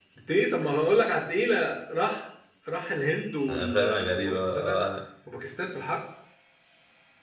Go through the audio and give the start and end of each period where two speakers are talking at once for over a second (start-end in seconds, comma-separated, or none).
3.5-4.8